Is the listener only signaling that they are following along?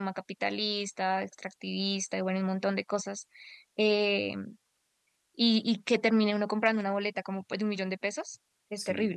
No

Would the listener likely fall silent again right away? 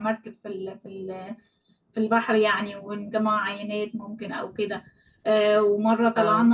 Yes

